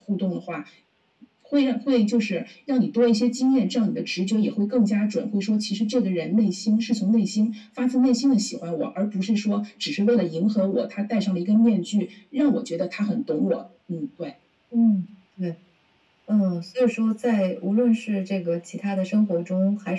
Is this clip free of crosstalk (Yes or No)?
Yes